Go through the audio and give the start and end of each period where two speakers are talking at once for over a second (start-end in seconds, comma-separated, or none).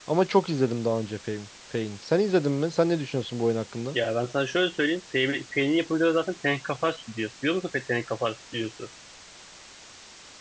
none